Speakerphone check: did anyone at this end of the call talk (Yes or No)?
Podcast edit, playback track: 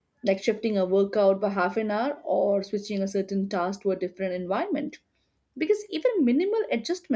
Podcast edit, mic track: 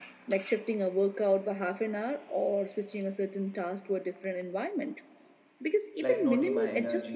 Yes